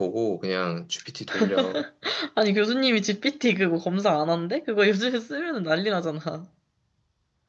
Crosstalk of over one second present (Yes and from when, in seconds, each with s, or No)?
No